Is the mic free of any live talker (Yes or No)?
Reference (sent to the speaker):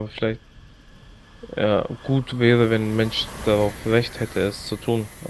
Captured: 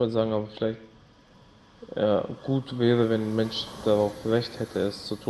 Yes